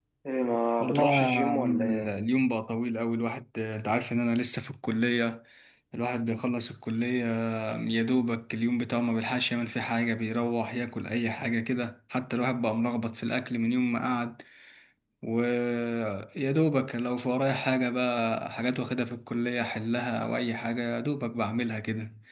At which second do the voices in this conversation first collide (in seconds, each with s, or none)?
0.8 s